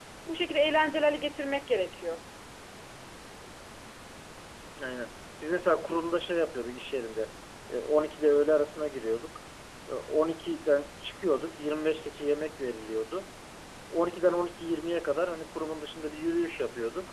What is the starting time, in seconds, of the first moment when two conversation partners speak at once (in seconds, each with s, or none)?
none